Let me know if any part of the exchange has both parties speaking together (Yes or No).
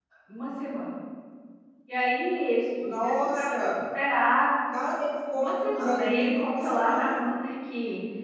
Yes